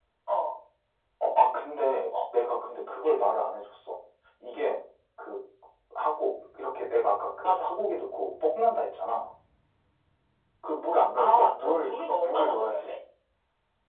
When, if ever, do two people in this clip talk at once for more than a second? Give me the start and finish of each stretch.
11.2-12.9

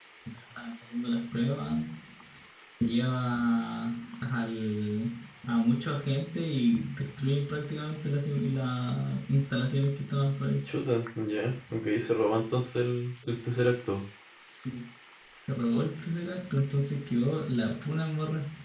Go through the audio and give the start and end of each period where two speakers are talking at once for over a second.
none

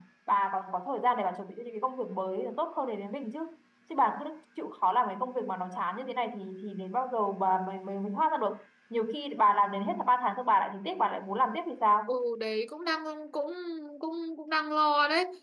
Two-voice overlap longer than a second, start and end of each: none

